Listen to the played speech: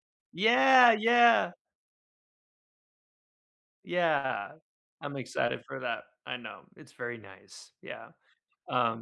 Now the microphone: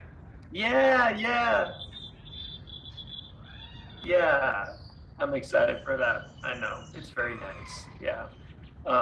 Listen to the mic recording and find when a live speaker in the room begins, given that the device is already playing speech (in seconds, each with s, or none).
none